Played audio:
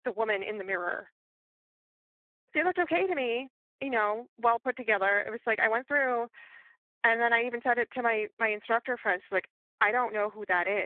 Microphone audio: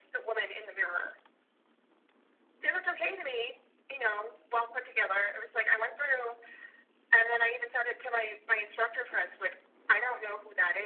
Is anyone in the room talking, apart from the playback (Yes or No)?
No